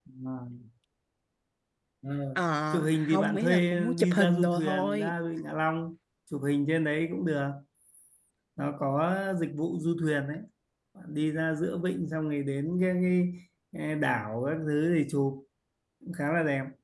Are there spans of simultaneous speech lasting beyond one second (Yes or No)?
Yes